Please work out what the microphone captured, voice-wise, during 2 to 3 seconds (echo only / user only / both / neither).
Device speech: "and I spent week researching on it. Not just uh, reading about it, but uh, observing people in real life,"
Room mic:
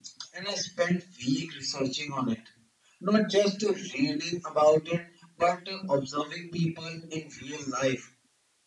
echo only